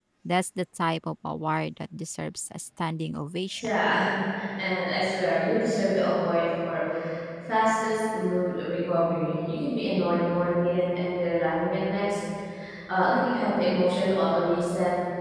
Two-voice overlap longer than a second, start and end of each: none

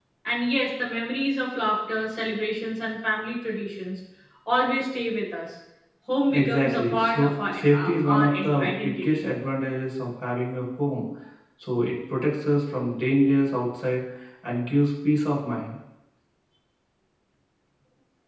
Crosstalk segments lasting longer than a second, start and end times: 6.3-9.2

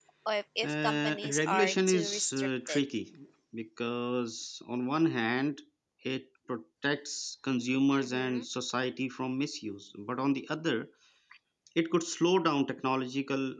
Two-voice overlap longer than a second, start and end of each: 0.6-2.8

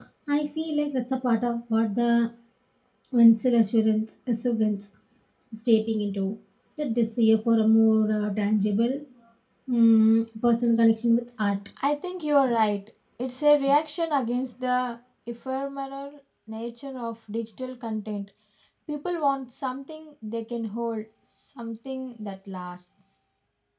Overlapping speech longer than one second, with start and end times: none

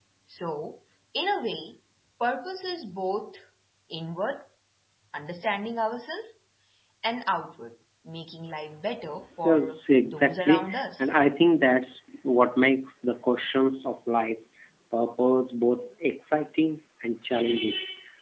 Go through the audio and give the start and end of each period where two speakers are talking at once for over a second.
9.4-11.2

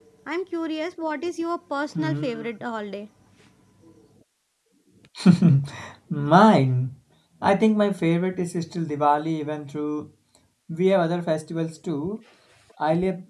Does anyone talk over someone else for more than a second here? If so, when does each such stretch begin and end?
none

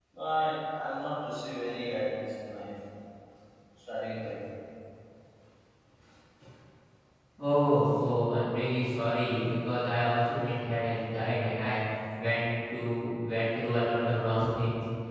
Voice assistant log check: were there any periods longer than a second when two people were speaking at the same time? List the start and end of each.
none

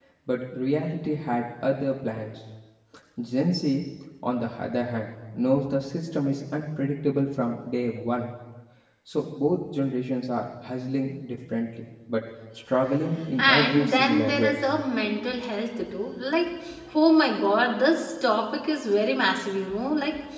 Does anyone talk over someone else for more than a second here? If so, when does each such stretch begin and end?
13.4-14.6

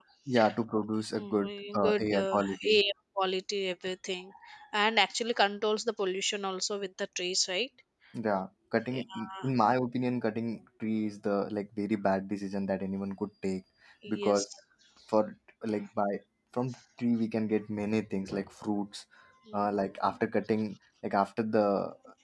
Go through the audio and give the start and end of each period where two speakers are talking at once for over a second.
1.1-2.8

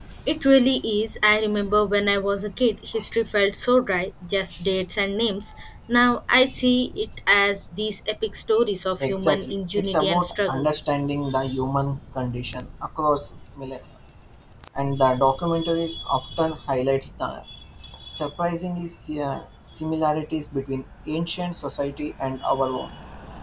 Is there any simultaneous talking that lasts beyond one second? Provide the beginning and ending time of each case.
9.0-10.7

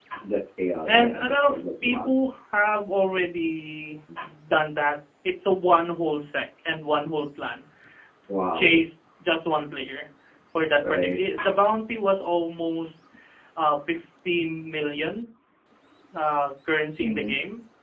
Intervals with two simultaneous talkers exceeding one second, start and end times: 0.9-2.1

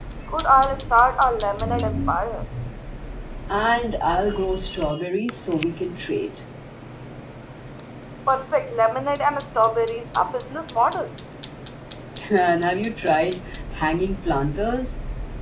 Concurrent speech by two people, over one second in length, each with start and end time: none

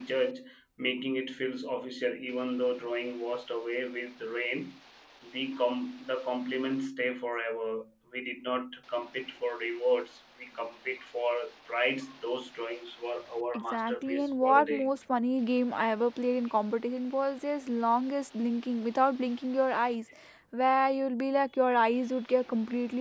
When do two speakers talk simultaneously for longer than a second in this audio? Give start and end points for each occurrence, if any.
13.5-14.9

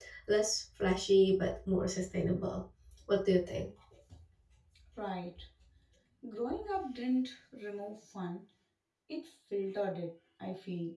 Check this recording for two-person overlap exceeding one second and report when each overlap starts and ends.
none

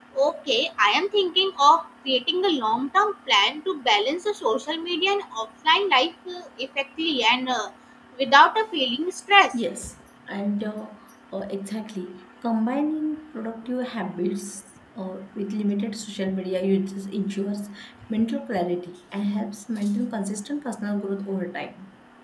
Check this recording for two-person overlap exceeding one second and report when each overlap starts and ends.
none

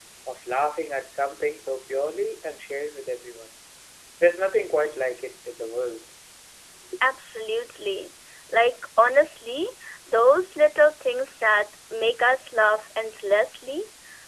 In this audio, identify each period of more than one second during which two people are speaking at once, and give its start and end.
none

